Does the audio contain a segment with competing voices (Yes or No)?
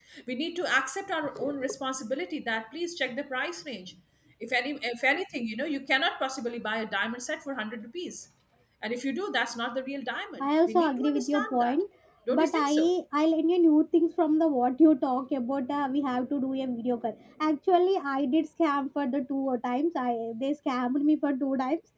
Yes